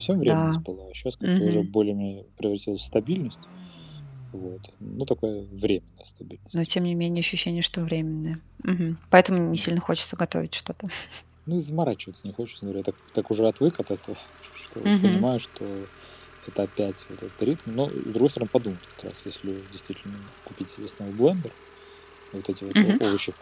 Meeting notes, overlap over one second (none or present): none